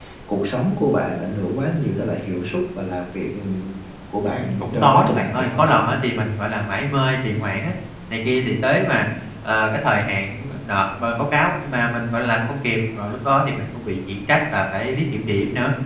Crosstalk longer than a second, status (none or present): present